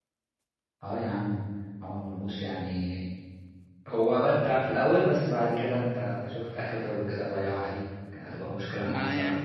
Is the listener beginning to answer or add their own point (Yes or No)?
Yes